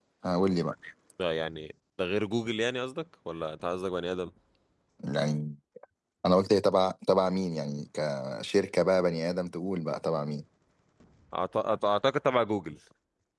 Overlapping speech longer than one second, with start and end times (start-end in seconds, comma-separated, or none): none